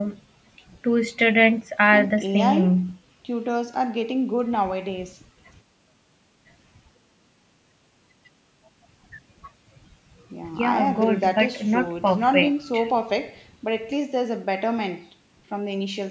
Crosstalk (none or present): present